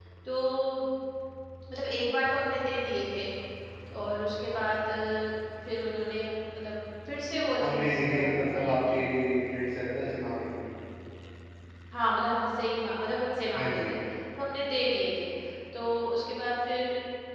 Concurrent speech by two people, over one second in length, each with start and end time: 7.6-9.0

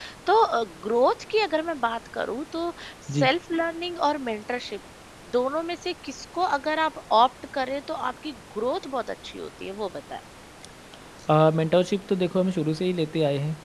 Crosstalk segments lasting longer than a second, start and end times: none

